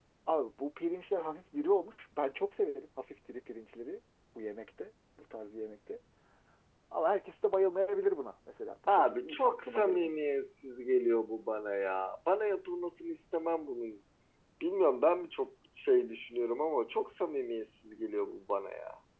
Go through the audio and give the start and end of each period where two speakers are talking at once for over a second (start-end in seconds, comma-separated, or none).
8.9-10.1